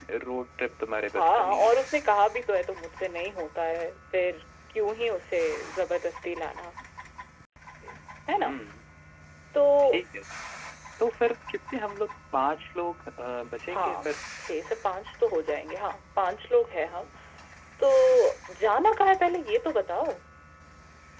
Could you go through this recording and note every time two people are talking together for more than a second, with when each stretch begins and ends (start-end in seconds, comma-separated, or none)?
none